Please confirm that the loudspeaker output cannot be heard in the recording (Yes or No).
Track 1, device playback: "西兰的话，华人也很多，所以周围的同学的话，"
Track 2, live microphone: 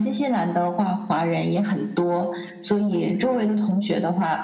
No